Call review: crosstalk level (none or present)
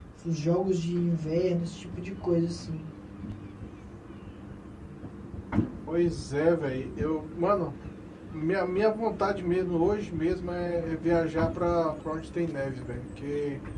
none